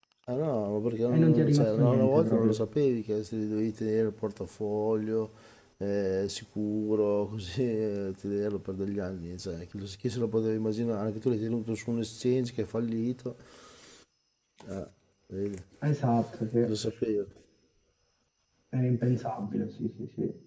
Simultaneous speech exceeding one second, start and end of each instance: 1.1-2.5

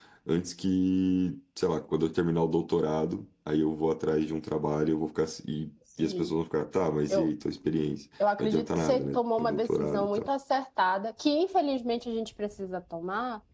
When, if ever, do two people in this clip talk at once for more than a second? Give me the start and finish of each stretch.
8.4-10.3

